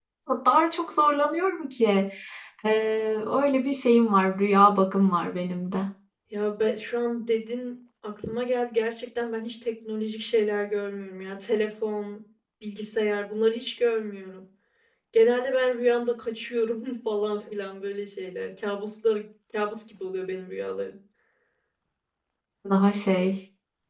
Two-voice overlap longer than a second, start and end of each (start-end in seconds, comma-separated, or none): none